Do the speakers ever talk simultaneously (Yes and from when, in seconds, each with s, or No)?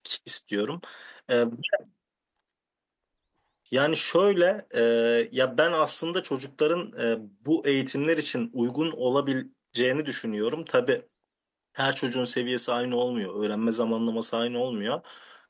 No